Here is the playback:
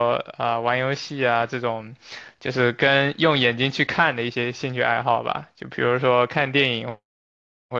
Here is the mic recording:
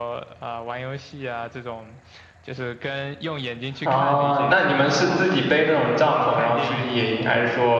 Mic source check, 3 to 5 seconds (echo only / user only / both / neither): both